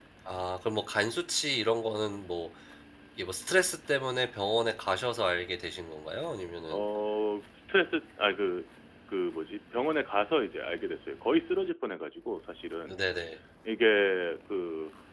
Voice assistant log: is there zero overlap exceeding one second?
Yes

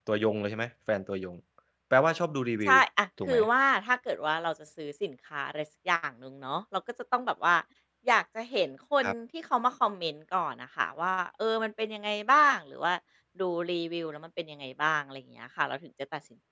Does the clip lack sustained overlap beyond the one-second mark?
Yes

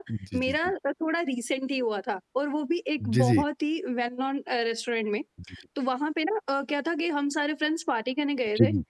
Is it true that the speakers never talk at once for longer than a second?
Yes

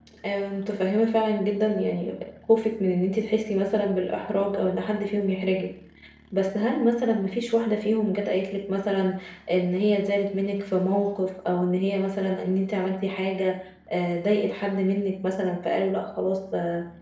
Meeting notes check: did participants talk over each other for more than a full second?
No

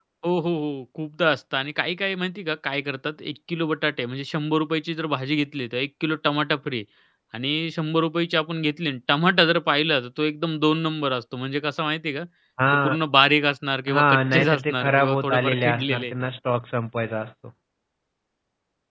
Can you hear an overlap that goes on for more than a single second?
Yes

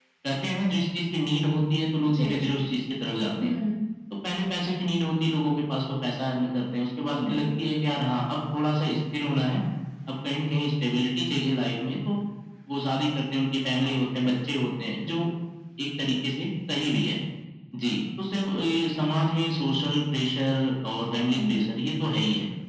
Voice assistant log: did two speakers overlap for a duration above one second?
No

